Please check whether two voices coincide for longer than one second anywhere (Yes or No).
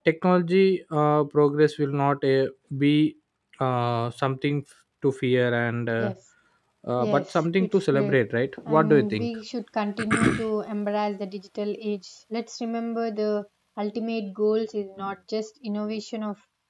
Yes